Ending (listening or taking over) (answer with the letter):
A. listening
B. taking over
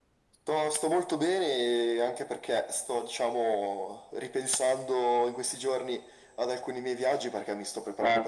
A